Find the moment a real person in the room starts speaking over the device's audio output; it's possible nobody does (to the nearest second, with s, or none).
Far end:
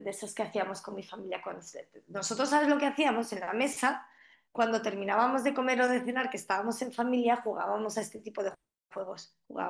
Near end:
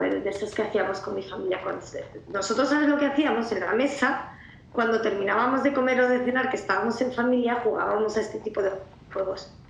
none